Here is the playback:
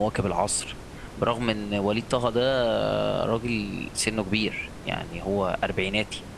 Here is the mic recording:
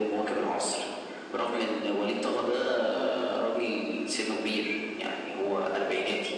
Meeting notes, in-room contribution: none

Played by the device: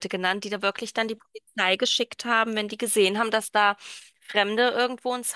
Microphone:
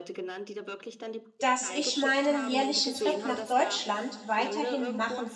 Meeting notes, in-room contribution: present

